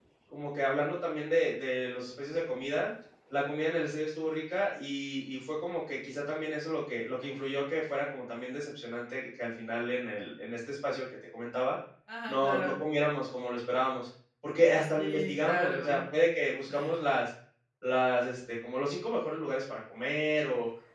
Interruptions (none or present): present